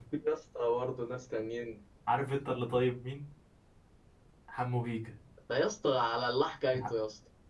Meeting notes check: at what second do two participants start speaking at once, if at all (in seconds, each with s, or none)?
none